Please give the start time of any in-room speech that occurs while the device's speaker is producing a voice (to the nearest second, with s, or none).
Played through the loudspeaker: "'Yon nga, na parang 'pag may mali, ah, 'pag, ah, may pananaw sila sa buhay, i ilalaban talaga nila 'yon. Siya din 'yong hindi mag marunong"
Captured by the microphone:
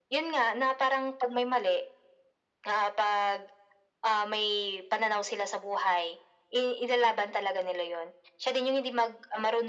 none